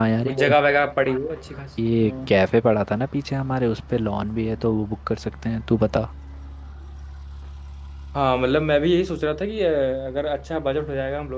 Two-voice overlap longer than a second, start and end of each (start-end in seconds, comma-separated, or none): none